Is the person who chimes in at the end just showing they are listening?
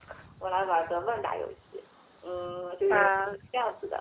Yes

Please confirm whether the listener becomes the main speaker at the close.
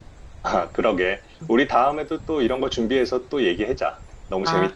Yes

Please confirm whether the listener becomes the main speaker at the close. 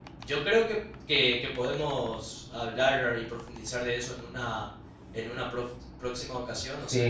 Yes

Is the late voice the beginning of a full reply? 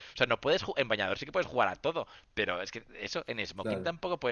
No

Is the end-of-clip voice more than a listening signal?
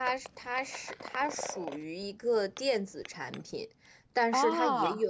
No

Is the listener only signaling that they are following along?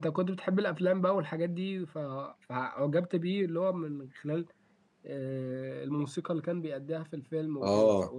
No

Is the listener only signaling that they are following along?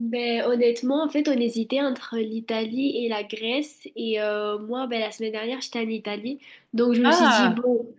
Yes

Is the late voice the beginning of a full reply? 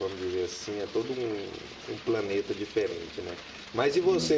No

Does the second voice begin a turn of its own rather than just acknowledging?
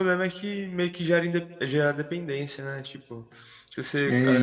No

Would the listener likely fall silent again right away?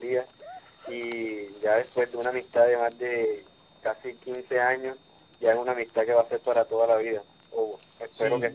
No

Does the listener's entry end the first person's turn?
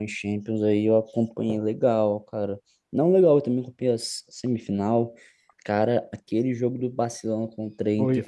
Yes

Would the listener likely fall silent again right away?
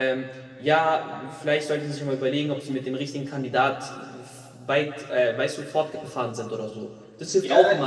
No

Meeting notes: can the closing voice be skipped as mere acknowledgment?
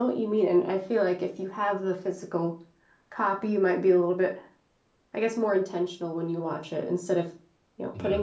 Yes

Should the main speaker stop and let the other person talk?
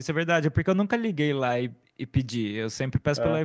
No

